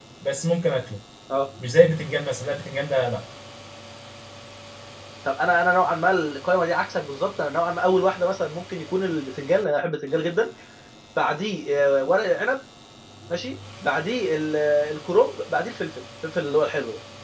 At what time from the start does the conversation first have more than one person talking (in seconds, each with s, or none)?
none